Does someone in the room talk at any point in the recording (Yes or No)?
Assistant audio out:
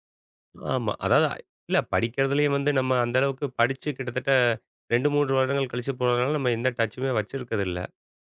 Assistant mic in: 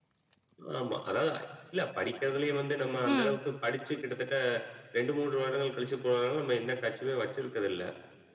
Yes